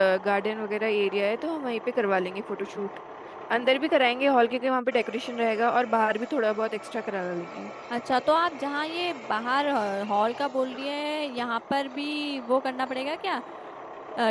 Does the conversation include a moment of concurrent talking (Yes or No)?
No